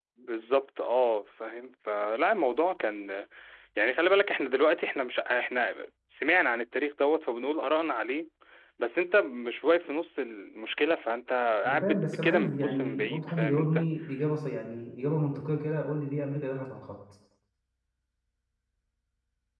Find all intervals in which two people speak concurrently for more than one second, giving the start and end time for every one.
11.6-13.9

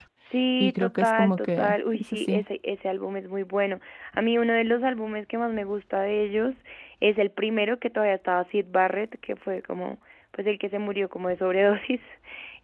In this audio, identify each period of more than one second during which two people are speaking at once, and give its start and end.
0.6-2.4

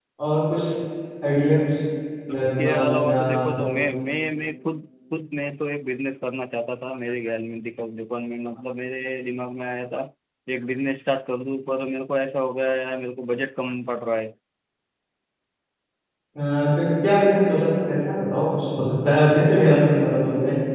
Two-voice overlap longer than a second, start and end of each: 2.3-3.8

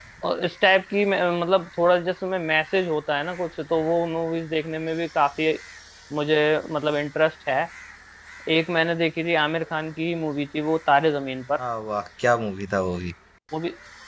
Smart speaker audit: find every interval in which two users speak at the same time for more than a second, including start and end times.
none

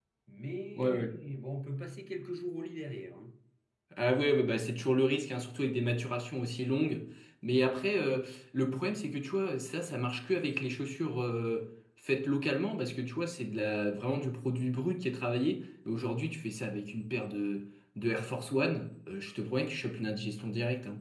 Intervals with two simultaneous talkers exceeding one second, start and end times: none

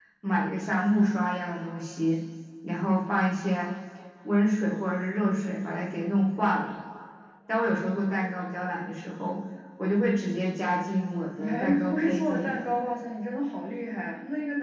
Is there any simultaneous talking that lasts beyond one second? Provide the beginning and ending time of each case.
11.4-12.7

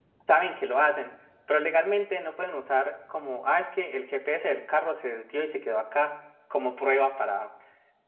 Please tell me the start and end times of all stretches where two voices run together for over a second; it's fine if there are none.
none

